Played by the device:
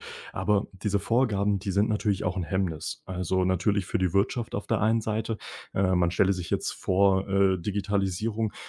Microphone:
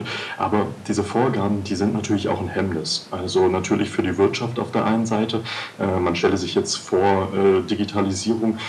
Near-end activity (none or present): none